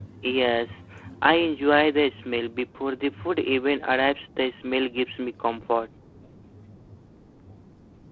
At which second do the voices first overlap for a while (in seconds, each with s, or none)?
none